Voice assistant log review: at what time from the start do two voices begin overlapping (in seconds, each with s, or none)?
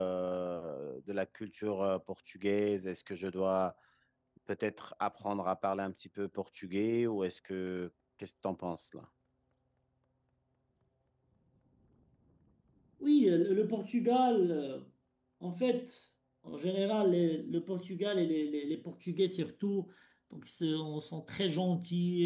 none